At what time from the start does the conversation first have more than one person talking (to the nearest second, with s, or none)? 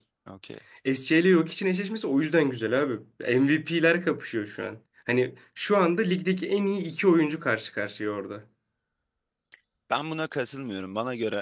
none